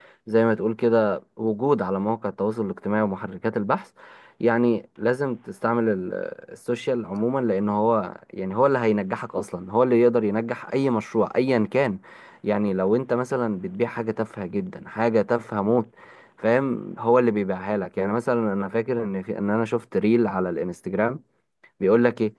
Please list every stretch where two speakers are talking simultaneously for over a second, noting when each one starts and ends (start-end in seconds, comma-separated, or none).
none